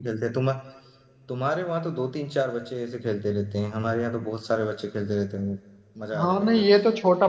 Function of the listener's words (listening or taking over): taking over